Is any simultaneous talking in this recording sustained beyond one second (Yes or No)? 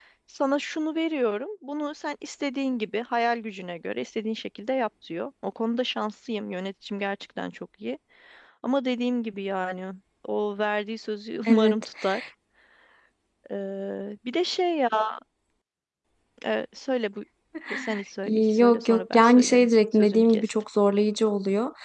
Yes